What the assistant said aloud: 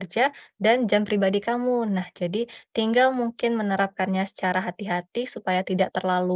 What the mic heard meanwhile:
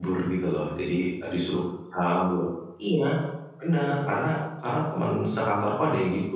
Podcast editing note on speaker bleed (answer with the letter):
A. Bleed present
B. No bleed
B